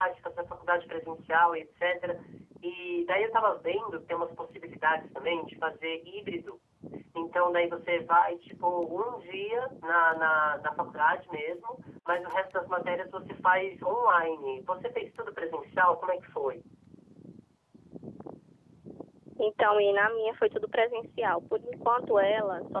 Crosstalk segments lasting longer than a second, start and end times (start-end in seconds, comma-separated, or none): none